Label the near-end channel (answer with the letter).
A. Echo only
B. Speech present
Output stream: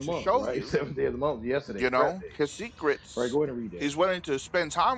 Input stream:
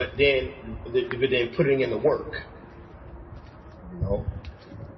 B